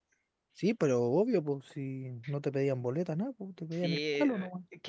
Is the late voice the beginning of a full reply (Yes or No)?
Yes